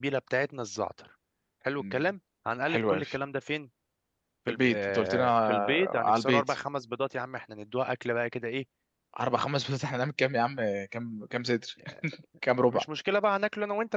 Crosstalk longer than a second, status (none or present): present